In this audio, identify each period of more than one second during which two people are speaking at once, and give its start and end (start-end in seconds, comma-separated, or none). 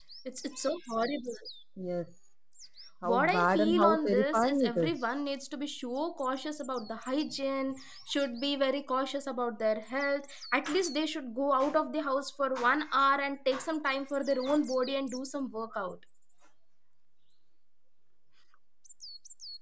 3.1-4.9